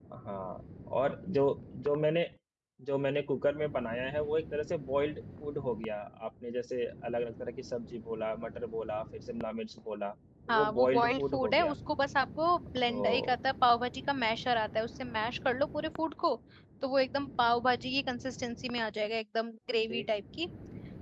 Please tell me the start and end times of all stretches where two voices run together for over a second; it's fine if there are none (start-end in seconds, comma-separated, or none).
10.5-11.8